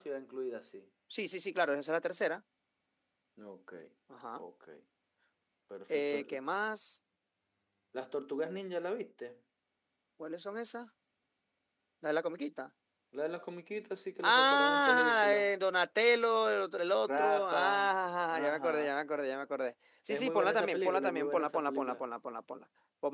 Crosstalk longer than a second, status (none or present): present